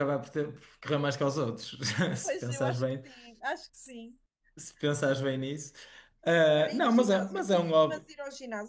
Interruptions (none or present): present